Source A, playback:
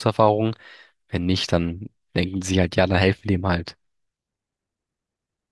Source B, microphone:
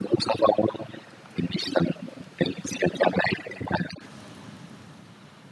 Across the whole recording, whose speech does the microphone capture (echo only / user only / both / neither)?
echo only